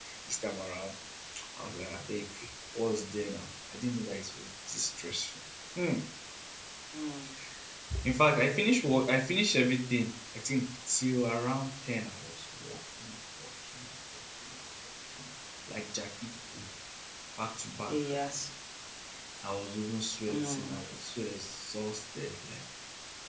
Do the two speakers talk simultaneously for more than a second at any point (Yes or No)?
No